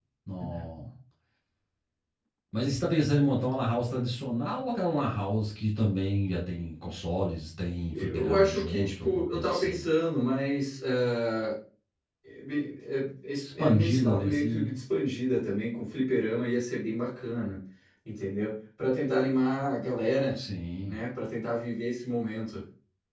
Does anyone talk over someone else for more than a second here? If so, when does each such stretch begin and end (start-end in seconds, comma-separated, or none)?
7.9-9.8, 13.4-14.8